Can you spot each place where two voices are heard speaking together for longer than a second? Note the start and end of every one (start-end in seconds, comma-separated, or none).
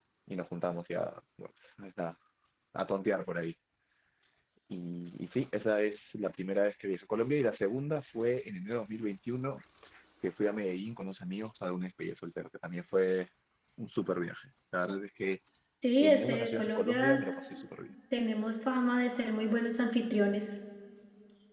16.0-17.2